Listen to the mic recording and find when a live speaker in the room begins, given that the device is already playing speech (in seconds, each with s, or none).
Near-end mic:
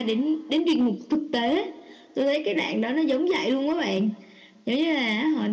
none